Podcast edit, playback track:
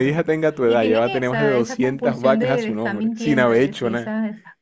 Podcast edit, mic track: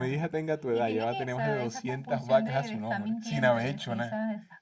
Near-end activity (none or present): none